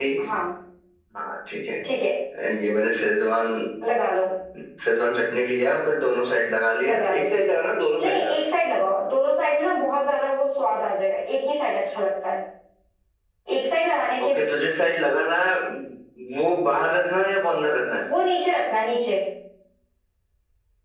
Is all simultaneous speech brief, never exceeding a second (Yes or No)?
Yes